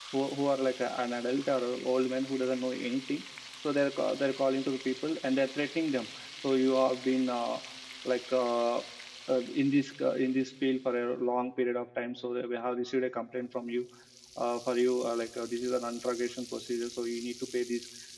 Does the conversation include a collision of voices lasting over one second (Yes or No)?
No